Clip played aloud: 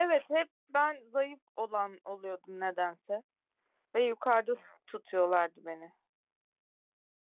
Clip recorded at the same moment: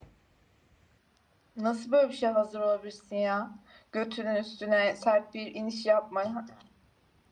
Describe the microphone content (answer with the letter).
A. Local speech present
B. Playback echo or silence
A